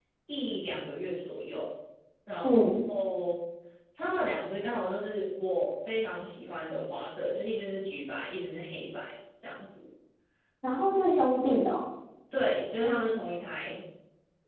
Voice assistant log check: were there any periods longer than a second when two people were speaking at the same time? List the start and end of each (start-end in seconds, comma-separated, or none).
none